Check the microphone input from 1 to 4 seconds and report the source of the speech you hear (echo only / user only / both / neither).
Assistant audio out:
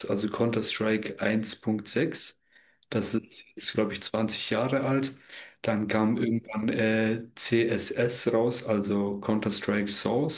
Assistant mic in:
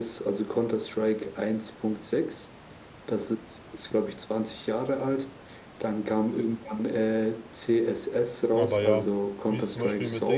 echo only